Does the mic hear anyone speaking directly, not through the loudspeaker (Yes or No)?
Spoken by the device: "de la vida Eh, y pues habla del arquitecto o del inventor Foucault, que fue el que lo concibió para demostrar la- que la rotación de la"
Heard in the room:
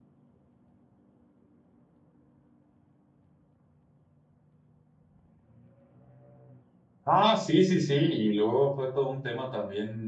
Yes